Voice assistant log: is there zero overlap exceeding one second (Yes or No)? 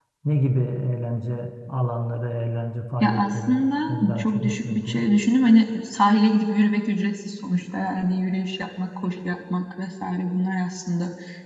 No